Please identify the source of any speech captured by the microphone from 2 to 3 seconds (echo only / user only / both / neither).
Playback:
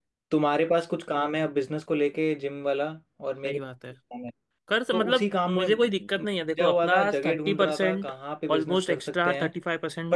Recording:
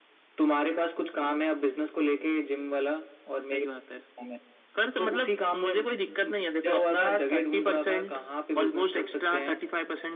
echo only